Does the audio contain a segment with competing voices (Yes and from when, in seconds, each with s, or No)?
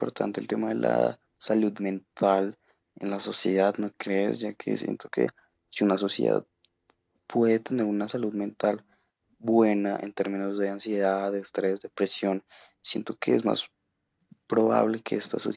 No